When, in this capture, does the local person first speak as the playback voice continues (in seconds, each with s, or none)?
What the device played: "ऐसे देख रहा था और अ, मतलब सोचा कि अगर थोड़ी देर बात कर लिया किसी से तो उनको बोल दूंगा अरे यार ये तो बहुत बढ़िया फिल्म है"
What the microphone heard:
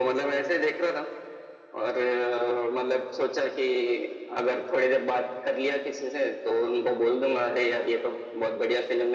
none